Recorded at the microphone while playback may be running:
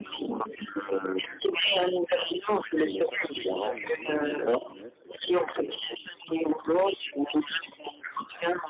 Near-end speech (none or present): present